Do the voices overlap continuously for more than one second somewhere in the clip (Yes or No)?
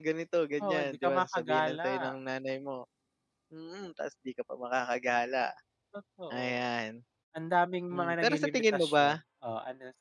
Yes